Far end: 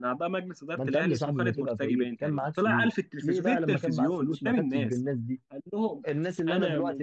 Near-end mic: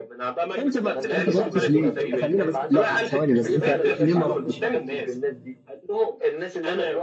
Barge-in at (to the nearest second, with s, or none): 1 s